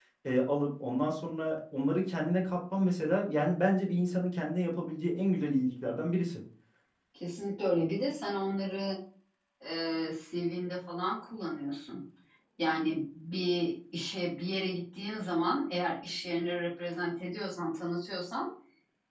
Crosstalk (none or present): none